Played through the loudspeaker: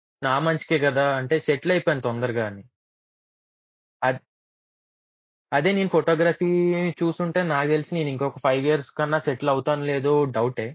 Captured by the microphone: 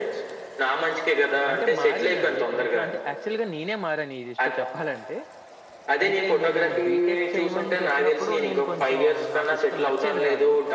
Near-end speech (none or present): present